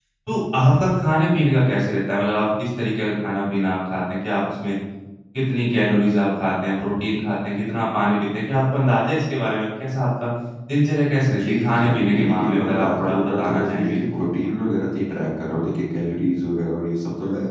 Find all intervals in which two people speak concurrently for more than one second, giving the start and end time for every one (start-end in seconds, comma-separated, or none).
11.4-14.2